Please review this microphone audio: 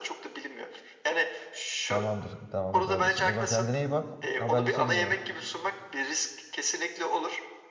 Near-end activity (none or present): present